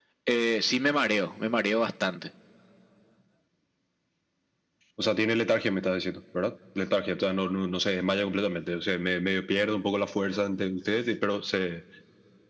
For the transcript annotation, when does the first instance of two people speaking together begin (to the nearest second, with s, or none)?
none